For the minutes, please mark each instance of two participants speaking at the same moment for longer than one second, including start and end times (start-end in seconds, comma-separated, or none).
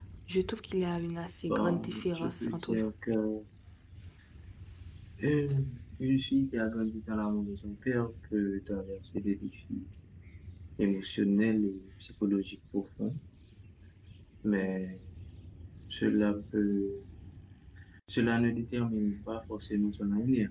1.5-2.8